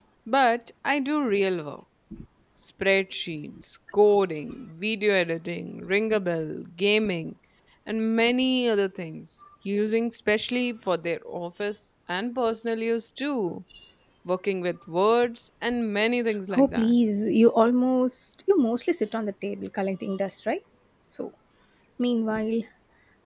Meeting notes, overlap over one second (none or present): none